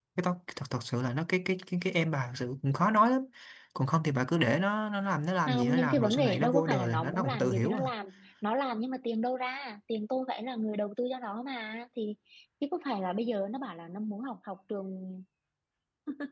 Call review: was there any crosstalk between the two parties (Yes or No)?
Yes